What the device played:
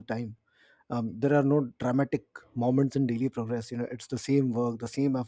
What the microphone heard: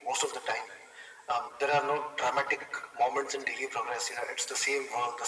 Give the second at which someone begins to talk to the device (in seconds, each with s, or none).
none